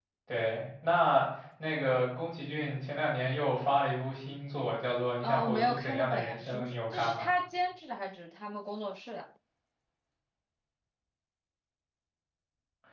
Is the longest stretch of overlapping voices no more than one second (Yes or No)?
No